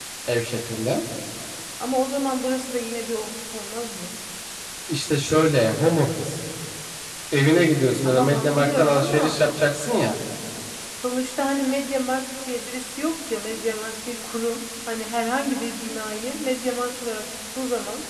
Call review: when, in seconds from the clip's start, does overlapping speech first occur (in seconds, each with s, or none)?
8.0 s